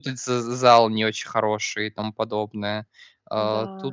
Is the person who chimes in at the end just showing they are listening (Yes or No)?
Yes